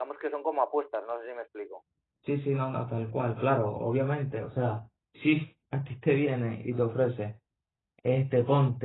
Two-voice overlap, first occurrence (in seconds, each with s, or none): none